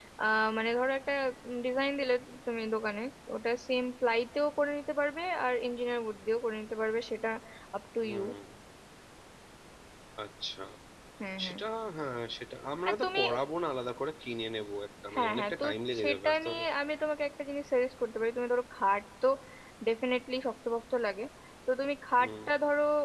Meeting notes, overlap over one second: present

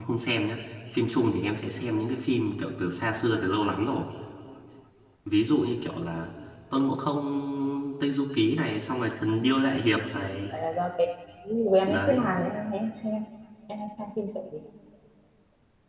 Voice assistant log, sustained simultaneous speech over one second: none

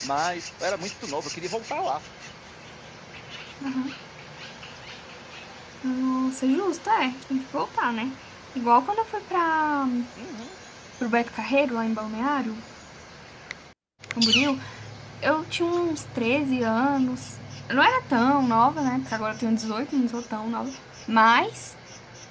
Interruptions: none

